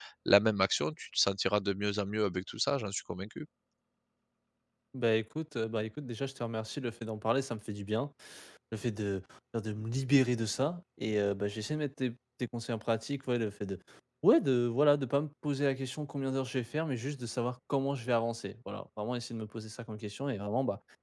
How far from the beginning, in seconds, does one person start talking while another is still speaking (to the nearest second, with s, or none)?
none